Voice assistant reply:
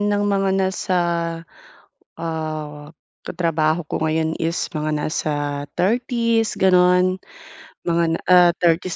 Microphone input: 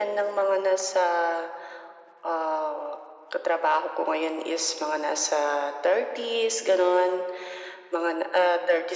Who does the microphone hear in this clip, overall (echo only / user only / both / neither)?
echo only